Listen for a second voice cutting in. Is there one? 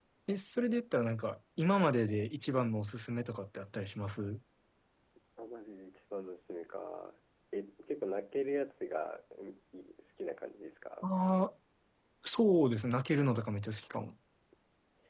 No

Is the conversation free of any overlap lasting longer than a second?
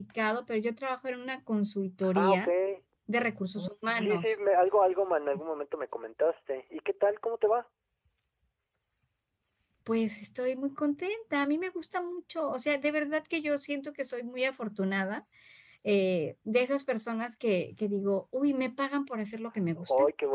Yes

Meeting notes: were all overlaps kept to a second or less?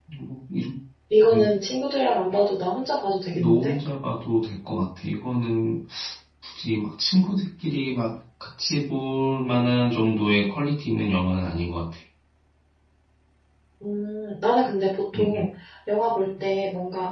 Yes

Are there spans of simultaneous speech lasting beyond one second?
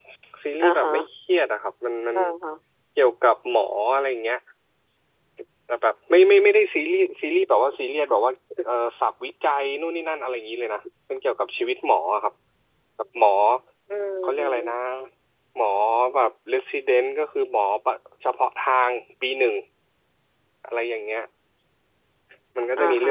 No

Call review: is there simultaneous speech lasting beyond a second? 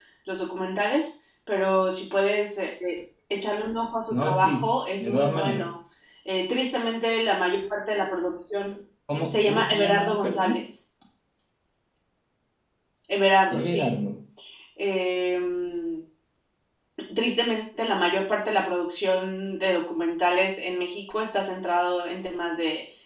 Yes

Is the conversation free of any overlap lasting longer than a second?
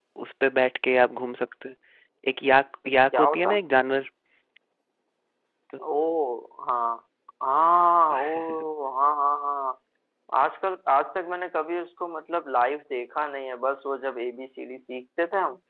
Yes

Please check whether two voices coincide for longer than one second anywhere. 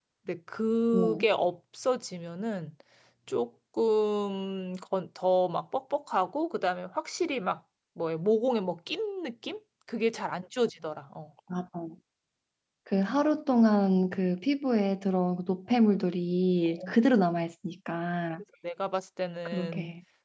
No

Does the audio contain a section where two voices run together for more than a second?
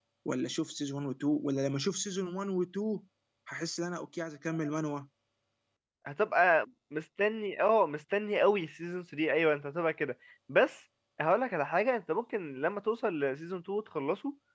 No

